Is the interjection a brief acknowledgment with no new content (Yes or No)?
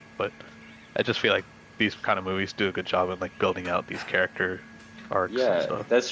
No